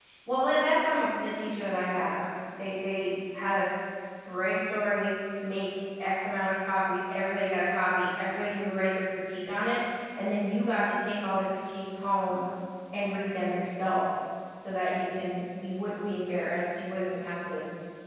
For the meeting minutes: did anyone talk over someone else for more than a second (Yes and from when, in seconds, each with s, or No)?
No